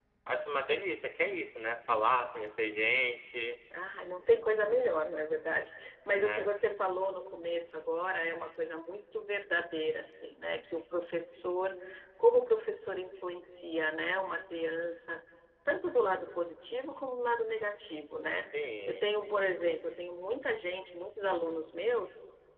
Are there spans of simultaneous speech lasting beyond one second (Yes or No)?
No